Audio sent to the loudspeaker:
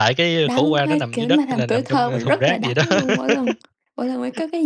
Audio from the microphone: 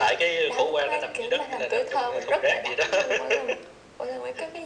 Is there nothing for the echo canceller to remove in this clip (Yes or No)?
No